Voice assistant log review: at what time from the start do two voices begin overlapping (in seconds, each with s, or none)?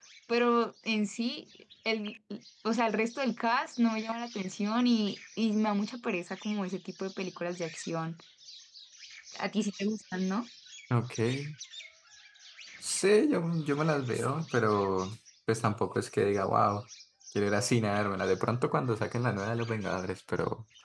none